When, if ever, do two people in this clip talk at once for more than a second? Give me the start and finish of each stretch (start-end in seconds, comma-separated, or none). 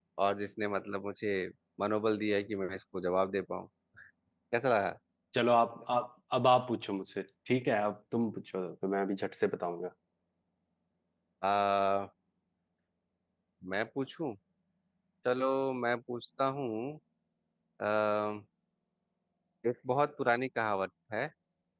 none